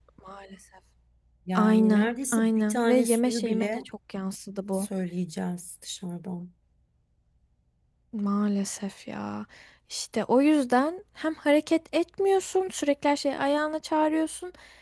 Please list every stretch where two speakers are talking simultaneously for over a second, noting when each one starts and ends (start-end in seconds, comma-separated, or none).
1.6-3.8